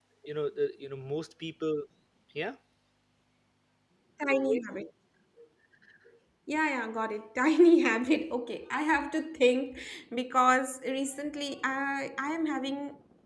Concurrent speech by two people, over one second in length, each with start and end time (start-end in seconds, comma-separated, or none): none